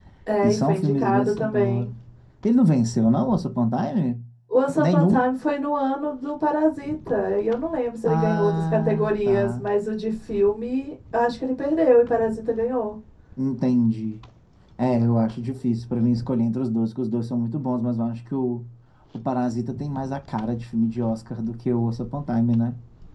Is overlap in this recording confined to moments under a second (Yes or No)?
No